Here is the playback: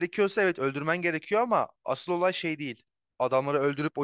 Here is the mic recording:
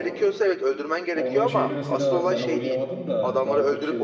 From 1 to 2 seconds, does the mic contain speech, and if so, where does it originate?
both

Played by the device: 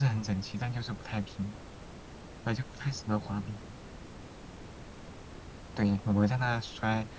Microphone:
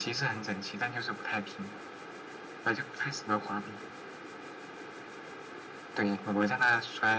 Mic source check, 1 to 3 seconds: echo only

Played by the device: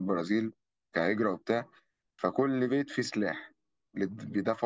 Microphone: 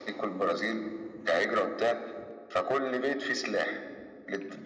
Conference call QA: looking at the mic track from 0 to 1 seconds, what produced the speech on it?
echo only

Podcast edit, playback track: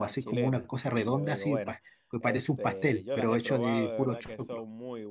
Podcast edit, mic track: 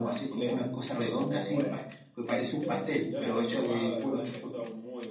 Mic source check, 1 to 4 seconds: echo only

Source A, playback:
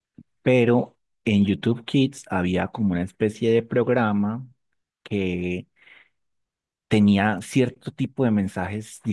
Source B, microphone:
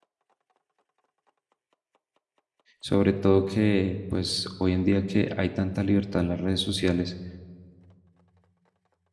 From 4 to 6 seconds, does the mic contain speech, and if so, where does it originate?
user only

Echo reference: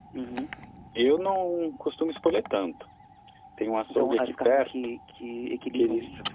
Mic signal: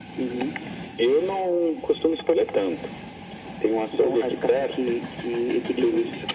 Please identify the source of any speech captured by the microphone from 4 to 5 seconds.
echo only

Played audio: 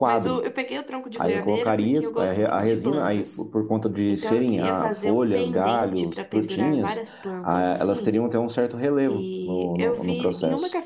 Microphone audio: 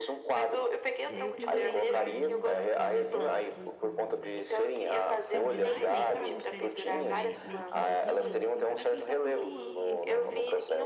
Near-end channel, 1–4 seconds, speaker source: both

